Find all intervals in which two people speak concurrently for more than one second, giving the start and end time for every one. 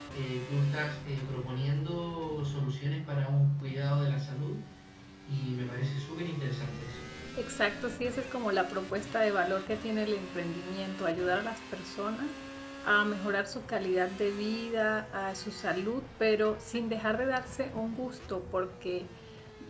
none

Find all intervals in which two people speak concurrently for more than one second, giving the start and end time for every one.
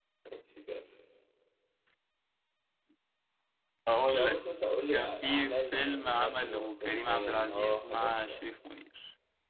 4.9-8.5

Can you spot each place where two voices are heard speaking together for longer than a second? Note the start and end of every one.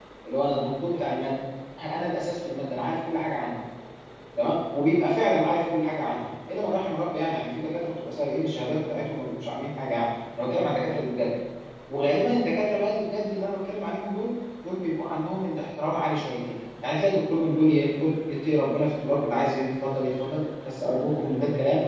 none

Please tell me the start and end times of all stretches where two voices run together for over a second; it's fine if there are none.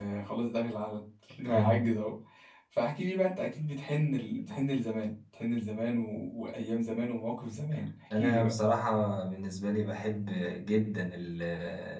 none

